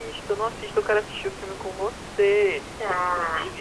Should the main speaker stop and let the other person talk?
No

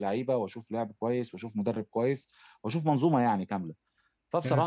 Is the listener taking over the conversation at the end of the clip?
No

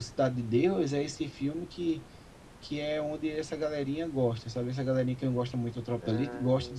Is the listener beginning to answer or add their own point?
Yes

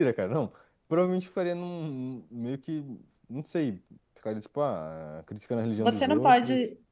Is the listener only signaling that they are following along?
No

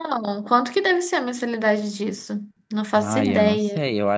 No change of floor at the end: No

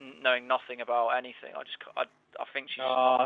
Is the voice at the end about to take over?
Yes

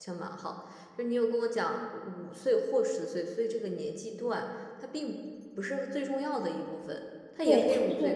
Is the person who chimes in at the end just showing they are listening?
No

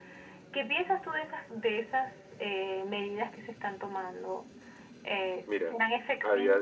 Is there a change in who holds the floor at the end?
Yes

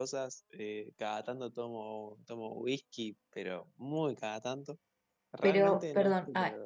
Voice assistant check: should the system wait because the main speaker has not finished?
No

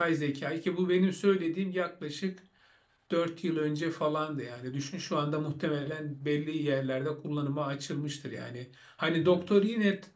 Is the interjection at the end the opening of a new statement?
No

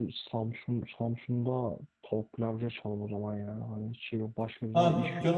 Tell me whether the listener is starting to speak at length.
Yes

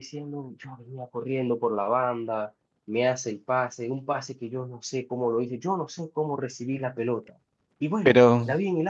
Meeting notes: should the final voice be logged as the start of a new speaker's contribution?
No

